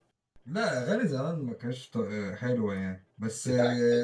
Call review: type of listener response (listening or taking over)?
listening